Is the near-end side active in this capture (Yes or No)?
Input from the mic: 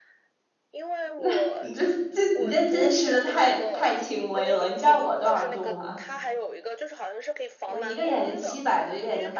Yes